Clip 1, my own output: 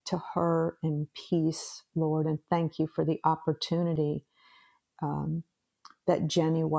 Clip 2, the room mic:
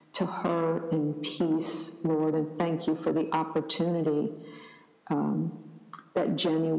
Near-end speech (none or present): none